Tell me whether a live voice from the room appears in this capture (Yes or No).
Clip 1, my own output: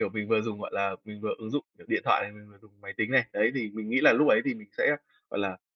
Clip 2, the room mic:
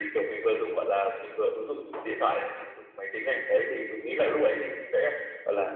No